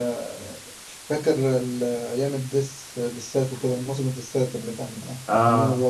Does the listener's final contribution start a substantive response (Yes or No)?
Yes